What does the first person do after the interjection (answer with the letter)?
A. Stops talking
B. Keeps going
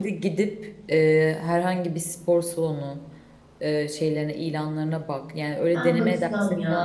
A